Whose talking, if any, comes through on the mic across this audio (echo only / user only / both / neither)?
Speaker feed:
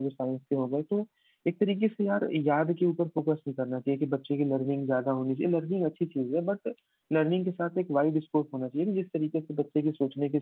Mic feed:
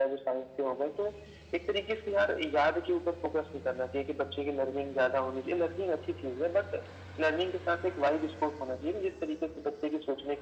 echo only